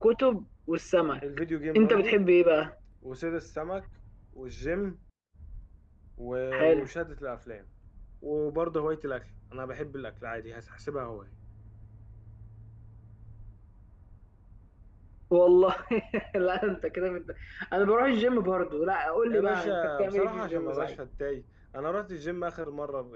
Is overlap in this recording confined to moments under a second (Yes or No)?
No